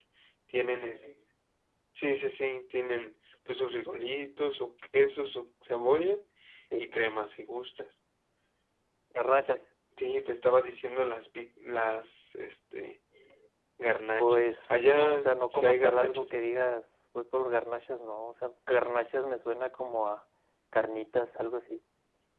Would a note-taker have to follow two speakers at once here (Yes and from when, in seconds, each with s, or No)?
Yes, from 14.2 s